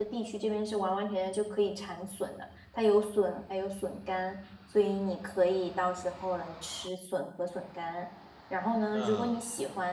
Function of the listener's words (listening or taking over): listening